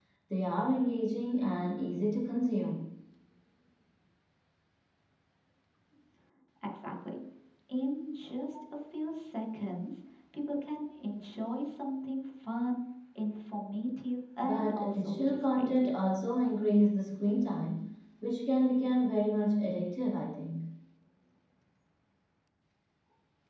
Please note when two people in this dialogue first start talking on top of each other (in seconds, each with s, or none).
14.4 s